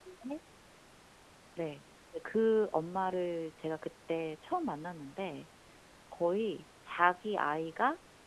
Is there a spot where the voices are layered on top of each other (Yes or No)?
No